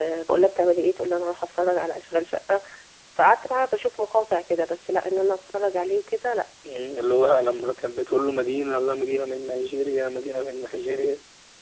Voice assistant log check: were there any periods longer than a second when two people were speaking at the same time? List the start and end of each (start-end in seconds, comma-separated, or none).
none